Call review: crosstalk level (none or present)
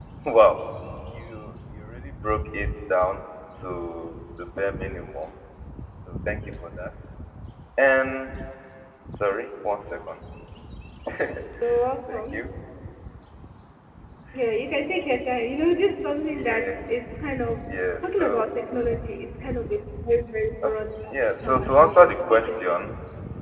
present